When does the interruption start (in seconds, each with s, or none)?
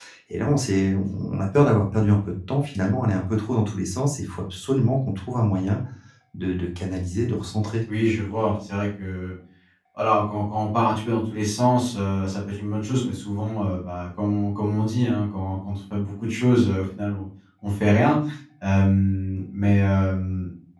none